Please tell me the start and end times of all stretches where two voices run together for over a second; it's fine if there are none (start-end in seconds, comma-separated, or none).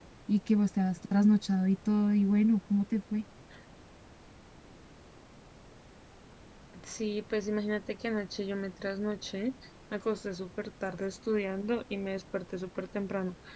none